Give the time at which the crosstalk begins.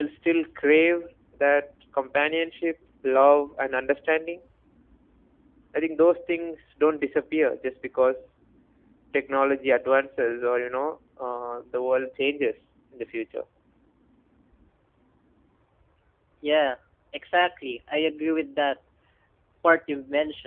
none

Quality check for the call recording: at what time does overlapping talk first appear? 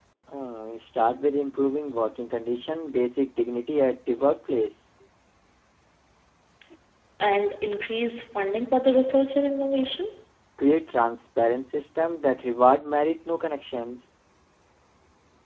none

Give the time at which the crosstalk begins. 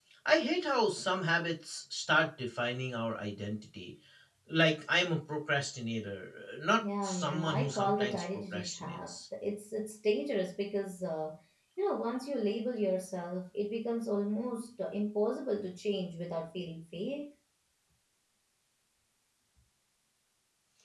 6.8 s

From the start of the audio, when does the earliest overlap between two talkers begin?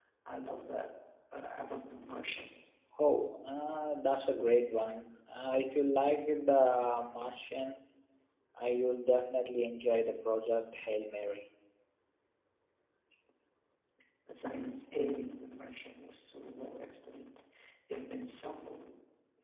none

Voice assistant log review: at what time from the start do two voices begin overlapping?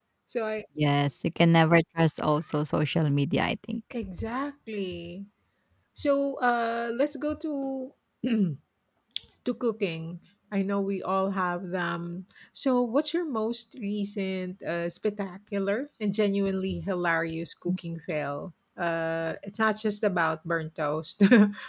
none

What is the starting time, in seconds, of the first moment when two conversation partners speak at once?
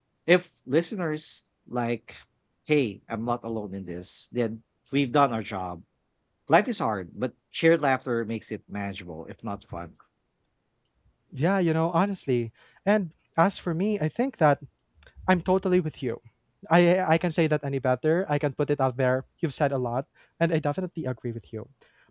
none

